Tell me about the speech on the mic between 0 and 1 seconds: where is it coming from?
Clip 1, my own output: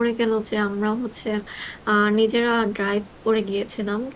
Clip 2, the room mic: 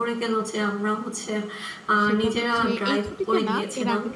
echo only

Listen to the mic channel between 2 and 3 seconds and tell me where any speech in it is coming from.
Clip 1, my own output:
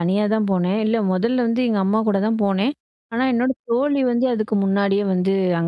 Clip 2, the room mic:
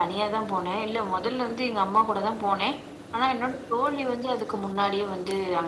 echo only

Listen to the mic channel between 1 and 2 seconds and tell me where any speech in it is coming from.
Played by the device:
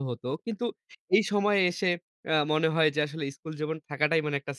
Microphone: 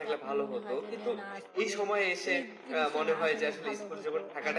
both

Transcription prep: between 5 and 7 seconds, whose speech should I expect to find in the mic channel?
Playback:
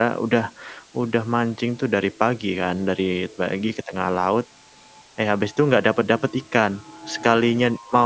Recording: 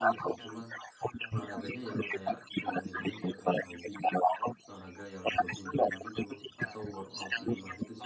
both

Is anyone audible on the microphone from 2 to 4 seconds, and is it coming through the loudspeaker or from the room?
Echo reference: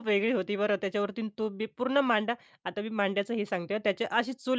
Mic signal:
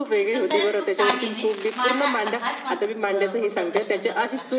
both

